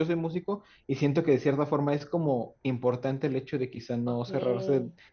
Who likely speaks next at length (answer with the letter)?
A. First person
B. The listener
A